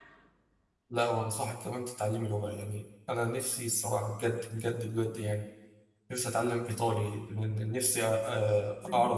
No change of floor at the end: Yes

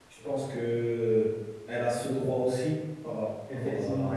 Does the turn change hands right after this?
Yes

